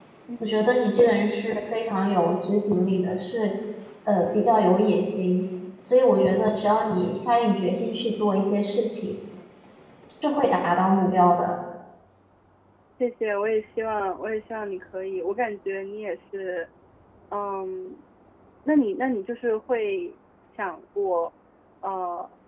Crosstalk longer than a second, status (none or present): none